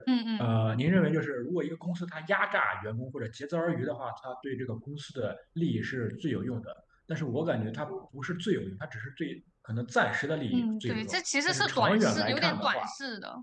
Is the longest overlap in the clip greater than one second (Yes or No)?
Yes